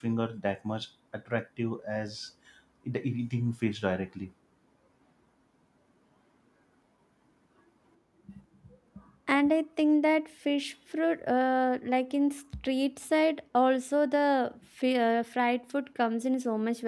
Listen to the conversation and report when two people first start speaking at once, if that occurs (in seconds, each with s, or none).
none